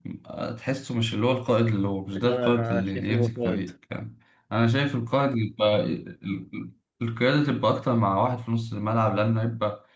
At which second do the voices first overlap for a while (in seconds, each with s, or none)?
2.1 s